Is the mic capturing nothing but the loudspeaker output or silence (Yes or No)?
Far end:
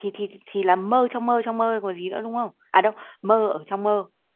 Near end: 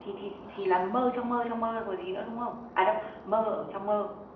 Yes